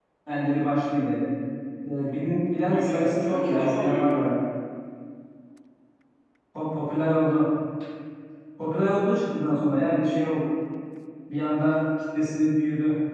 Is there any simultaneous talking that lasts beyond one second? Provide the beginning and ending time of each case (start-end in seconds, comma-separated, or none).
2.7-4.3